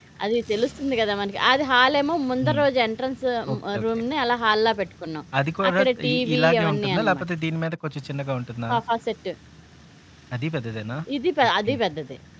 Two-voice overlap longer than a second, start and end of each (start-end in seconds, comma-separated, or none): 5.7-7.2